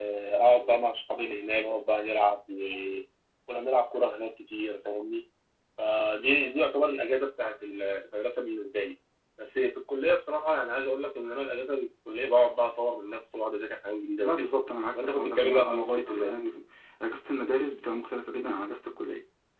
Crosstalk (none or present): present